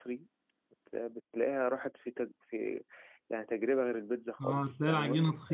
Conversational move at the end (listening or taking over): taking over